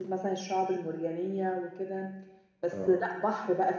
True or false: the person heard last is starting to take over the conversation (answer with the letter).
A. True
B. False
B